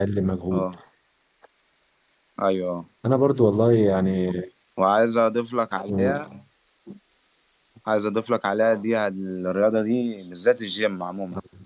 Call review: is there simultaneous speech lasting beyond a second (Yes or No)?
No